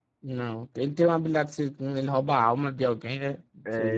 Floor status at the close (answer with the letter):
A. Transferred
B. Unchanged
A